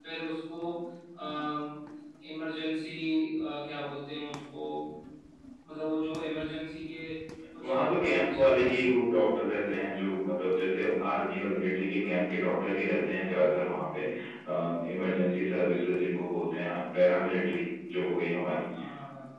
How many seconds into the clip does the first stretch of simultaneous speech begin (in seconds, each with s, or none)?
7.6 s